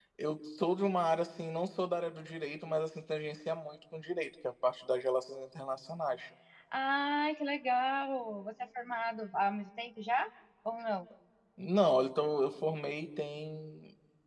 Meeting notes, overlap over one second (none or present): none